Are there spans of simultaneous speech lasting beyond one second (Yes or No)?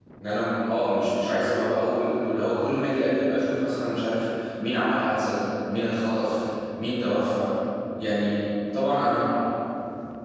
No